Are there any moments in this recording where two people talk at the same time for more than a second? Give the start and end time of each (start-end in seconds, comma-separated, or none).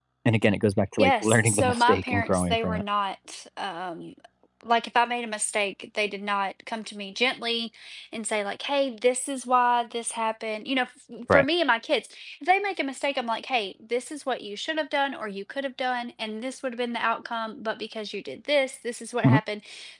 1.0-2.8